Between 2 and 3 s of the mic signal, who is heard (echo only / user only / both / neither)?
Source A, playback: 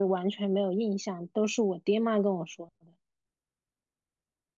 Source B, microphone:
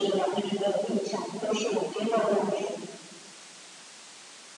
echo only